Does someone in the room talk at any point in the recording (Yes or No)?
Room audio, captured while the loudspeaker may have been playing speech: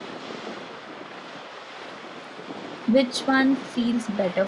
Yes